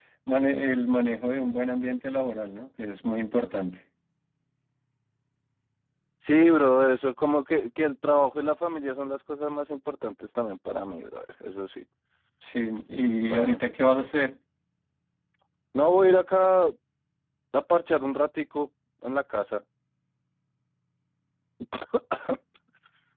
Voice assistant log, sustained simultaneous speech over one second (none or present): none